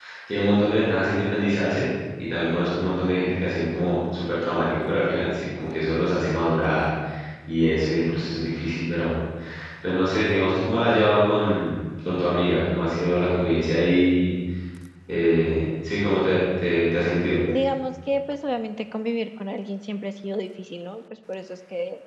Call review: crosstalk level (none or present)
none